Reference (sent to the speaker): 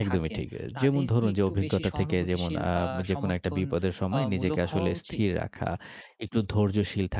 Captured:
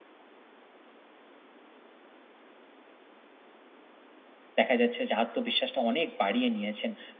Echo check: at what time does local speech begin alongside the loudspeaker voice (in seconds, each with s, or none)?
4.6 s